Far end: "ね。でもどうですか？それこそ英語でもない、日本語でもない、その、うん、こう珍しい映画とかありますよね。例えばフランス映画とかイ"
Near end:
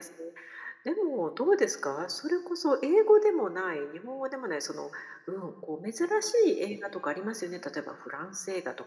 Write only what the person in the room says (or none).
none